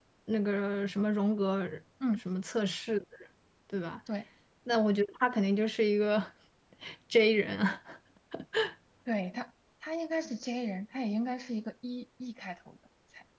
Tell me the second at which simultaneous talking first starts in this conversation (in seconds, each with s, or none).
none